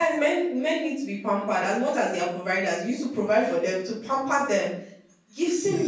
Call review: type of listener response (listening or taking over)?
listening